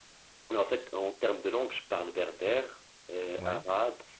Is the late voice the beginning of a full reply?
No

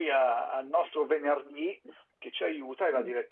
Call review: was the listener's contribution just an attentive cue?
Yes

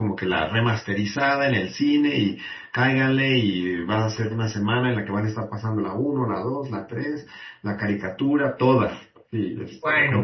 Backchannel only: No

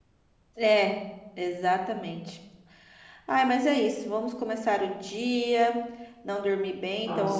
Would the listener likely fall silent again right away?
Yes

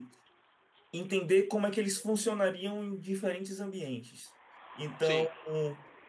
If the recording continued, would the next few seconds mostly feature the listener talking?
No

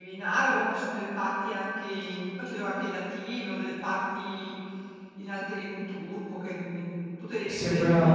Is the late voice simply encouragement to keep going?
No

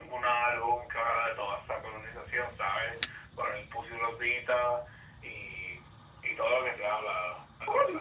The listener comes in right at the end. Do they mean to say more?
Yes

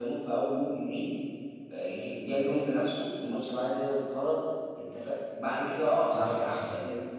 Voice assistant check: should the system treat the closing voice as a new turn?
No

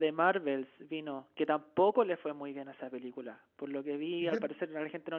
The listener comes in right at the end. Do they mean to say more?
No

